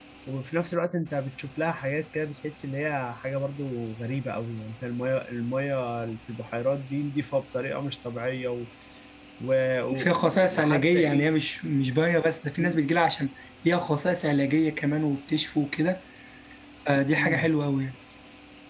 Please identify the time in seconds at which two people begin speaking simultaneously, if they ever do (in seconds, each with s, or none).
9.9 s